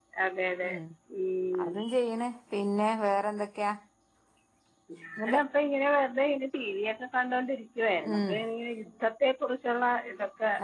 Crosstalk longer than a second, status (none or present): none